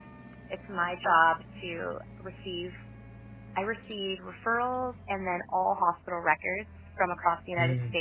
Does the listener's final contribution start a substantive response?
No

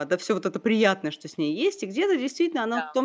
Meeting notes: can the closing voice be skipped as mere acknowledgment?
Yes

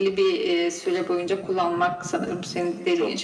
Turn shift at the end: No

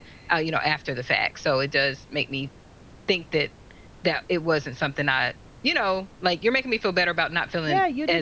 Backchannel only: No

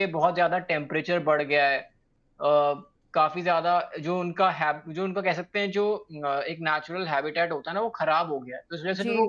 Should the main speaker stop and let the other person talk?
Yes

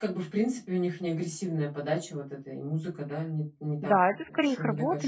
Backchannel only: No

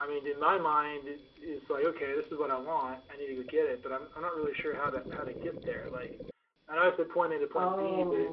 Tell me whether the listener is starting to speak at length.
No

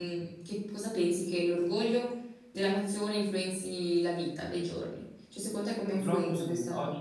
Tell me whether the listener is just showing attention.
No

